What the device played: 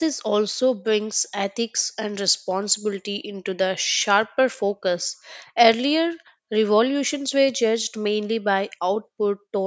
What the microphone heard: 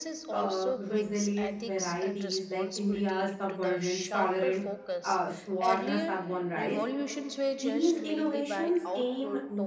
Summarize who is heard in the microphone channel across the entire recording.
both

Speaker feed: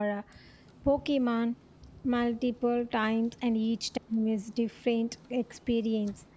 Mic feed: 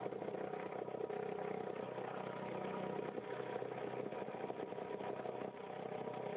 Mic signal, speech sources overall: neither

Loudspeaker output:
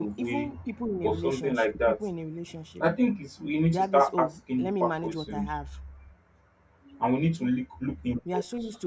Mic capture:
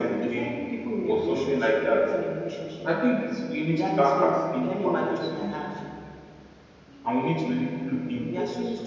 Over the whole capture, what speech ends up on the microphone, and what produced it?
echo only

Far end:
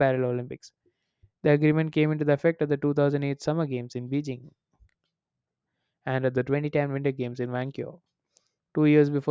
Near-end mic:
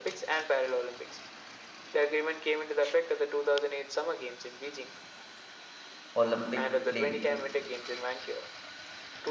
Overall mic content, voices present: both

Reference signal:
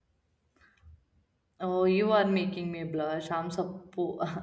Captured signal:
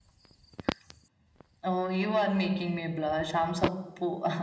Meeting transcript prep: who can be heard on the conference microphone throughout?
echo only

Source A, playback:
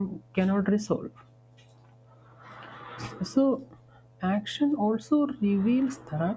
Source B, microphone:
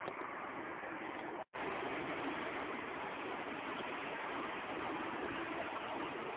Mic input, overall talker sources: neither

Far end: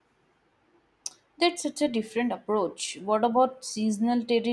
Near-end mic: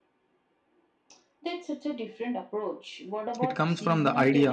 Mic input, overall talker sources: both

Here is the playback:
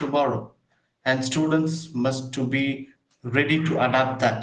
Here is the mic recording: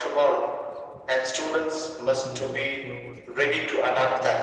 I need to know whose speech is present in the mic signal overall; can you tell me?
both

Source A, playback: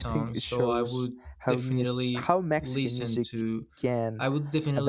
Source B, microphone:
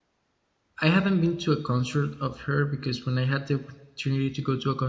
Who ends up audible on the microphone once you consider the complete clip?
user only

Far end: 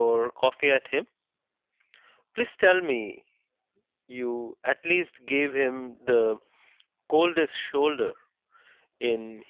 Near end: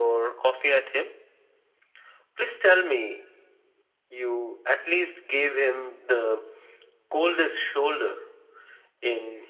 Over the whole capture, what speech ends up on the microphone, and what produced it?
echo only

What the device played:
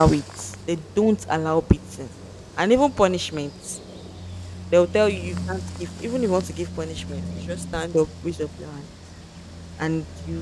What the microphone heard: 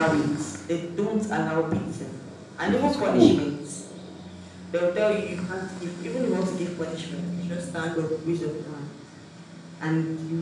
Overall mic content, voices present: both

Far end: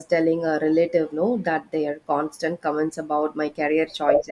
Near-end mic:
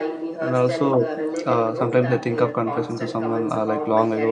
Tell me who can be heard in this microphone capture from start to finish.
both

